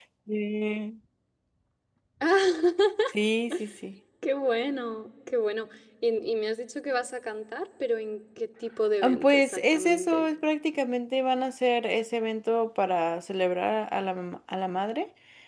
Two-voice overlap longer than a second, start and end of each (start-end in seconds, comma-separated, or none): 9.0-10.3